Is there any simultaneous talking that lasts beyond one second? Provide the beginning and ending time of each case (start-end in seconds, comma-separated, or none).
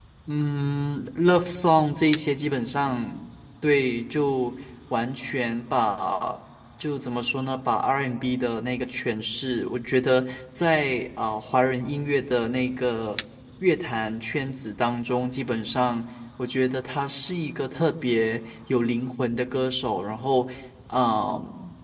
none